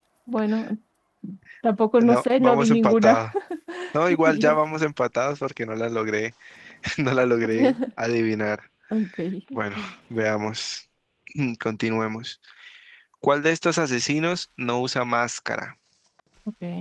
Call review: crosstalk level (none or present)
present